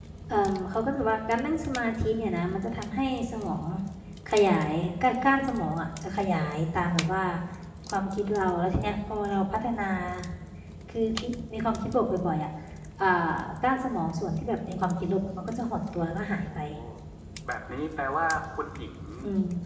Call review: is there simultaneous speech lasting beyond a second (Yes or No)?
No